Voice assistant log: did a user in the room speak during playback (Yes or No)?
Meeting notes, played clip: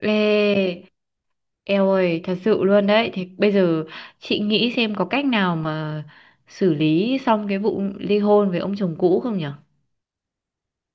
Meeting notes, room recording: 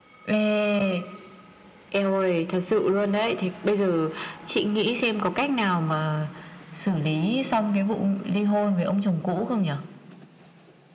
No